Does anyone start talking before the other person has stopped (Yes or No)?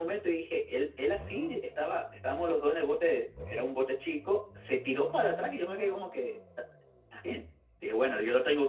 No